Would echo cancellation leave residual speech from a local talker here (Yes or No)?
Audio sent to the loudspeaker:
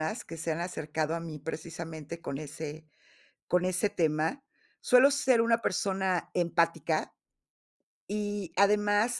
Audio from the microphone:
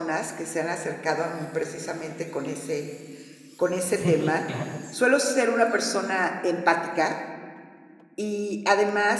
Yes